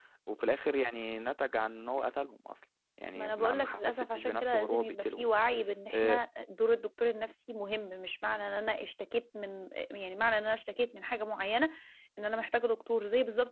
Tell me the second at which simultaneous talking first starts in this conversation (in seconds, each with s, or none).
3.1 s